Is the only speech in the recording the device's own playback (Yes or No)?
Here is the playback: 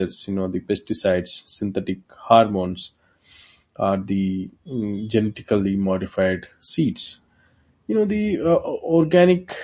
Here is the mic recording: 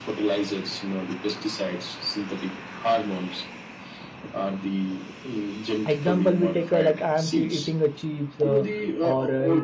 No